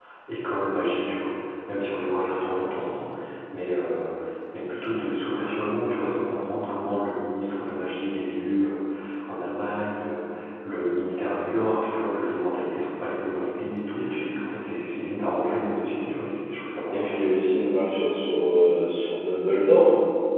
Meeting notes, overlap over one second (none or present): none